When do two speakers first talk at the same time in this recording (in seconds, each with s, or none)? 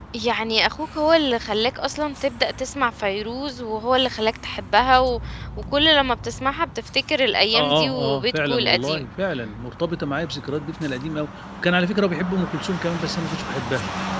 7.5 s